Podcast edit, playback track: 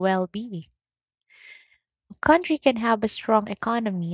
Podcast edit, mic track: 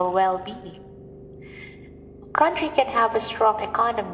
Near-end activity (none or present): none